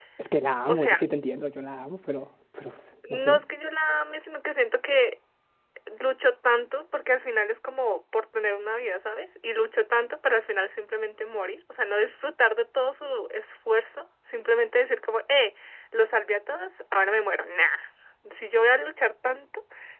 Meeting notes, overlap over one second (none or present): none